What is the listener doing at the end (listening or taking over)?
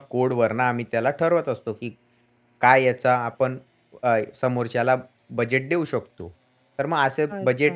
listening